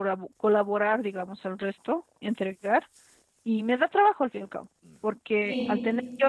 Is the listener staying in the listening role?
Yes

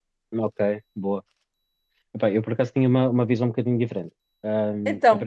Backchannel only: Yes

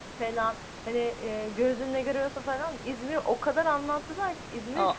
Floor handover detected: Yes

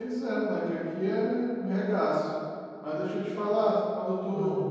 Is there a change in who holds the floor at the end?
No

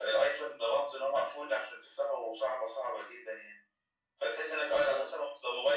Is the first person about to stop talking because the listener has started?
No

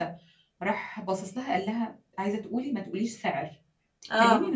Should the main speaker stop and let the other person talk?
No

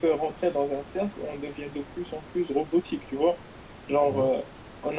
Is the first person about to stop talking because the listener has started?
No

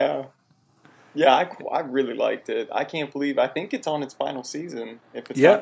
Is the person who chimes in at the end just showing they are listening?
No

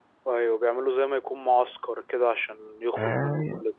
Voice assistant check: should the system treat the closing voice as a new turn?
Yes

